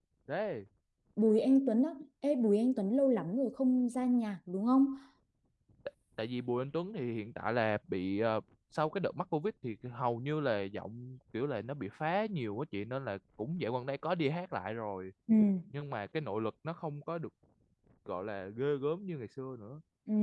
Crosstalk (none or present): none